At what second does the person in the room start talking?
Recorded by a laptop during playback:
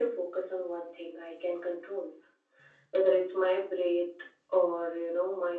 none

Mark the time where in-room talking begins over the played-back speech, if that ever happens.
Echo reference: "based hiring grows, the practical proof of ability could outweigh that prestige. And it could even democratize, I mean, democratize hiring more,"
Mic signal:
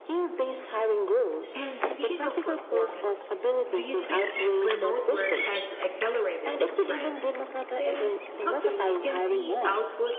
2 s

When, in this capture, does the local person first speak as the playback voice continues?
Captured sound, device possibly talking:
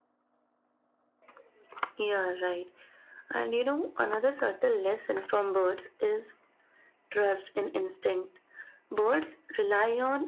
none

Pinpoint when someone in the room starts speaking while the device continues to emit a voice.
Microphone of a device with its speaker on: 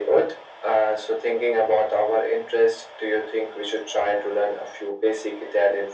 none

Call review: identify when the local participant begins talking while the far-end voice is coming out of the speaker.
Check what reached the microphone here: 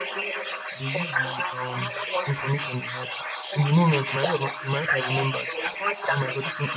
1 s

